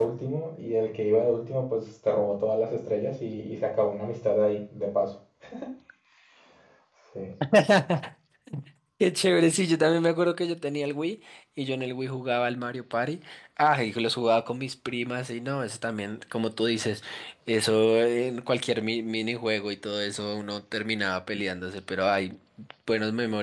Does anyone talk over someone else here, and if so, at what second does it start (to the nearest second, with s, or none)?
none